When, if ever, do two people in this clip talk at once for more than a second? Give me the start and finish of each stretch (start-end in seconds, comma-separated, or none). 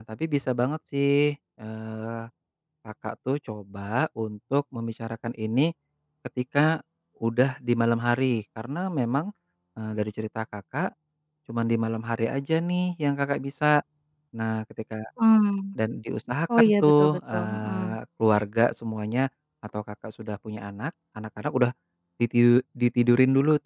16.6-18.0